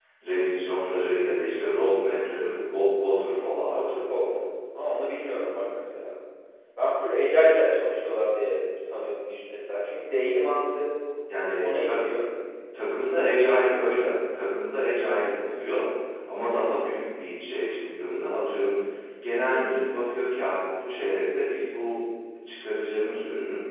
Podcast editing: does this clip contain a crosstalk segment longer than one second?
No

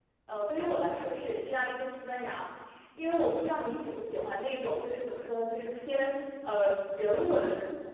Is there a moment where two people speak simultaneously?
No

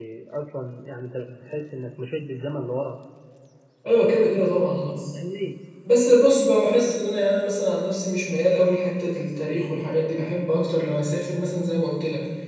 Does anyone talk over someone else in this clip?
No

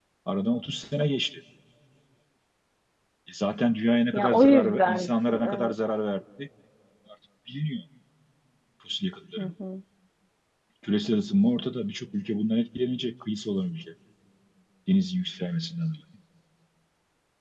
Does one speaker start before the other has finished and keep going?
Yes, from 4.1 s

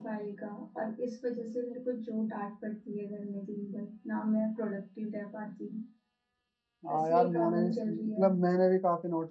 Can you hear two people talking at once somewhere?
Yes, from 6.9 s

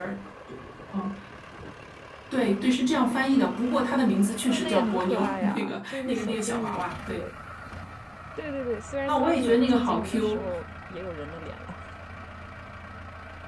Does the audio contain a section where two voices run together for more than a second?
Yes, from 4.5 s

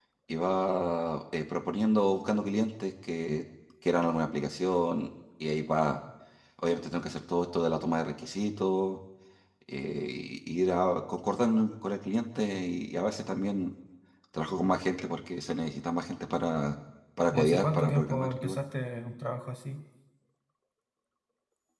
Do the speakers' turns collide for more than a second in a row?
Yes, from 17.3 s

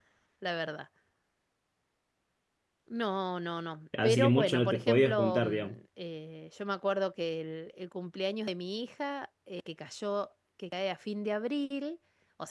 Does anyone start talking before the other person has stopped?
Yes, from 3.9 s

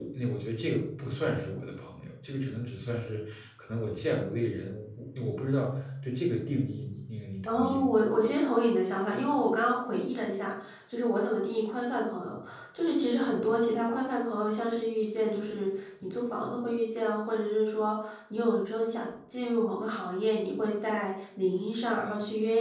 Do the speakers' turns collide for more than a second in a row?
No

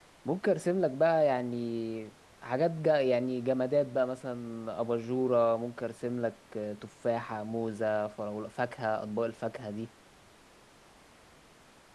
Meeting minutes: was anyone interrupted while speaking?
No

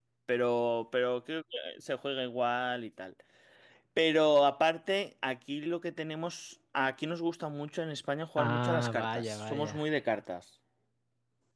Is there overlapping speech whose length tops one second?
Yes, from 8.4 s

